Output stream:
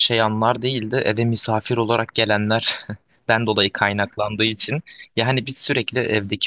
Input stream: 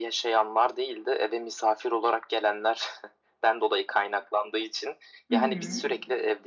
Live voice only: Hı hı.

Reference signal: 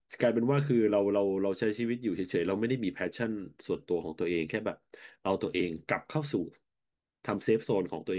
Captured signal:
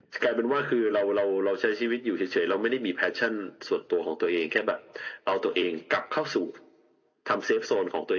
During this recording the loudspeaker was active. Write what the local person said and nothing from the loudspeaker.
none

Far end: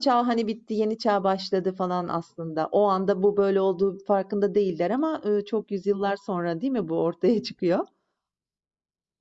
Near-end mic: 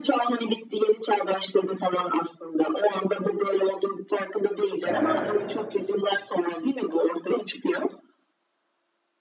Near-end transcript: Aha,

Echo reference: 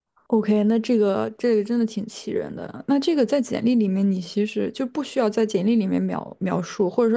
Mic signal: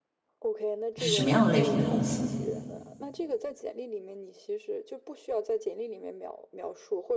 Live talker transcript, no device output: 是什么样的类型的公司？

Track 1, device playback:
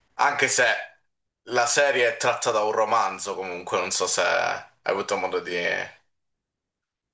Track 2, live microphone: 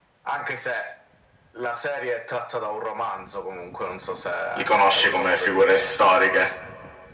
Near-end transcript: Li conosci come figure storiche.

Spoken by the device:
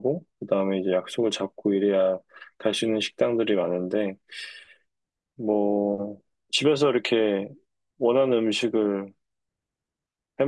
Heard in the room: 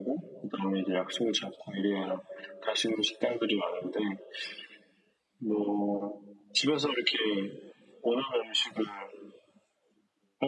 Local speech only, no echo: none

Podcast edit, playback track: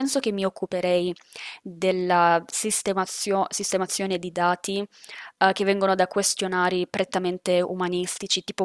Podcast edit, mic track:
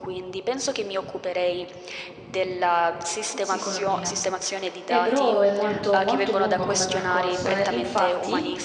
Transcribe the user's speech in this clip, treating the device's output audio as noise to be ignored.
Psicologia. Eh, però è molto, molto lungo come percorso, eh. Infatti,

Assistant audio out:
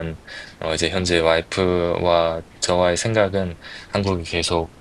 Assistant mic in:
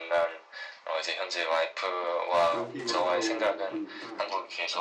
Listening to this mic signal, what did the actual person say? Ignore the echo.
여기 와서 보니까

